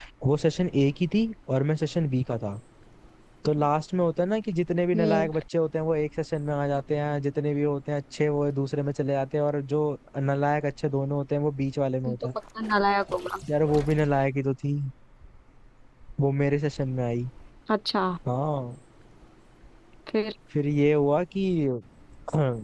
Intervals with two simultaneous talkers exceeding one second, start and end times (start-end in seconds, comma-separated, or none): none